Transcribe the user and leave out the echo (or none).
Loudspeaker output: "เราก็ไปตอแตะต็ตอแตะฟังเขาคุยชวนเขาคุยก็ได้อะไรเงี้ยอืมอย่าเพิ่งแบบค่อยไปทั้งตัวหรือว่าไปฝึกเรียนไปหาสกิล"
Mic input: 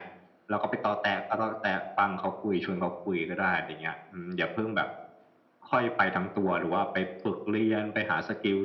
none